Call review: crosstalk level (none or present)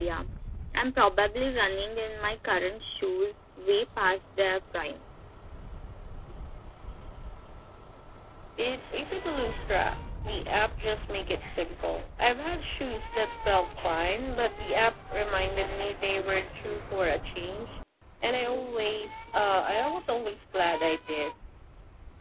none